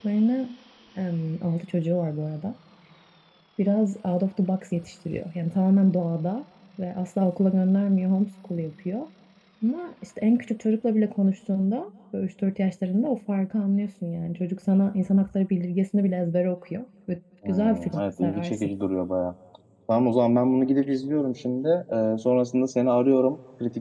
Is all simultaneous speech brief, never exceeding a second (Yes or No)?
No